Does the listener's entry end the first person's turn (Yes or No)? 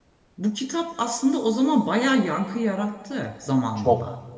Yes